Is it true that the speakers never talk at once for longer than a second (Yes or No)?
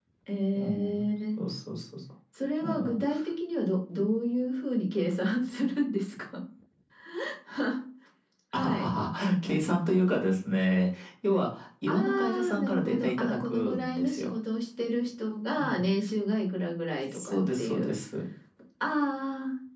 No